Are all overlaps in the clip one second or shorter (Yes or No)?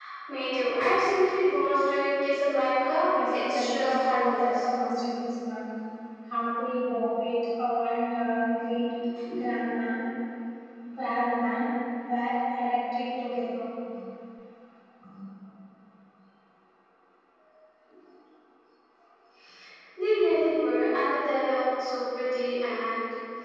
No